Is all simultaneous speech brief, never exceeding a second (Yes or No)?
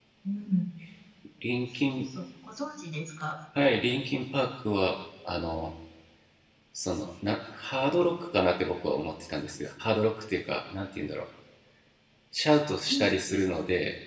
Yes